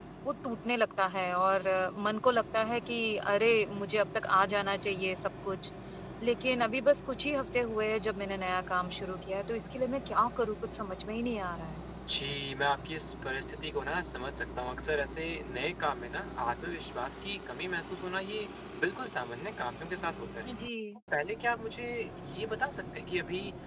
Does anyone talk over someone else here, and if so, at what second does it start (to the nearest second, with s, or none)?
none